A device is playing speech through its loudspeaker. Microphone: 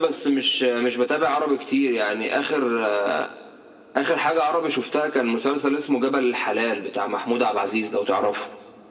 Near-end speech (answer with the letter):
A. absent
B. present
A